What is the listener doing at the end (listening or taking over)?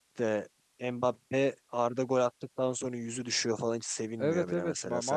taking over